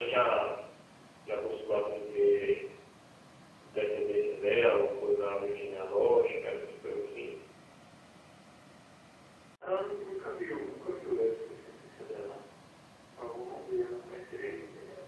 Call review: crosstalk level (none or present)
none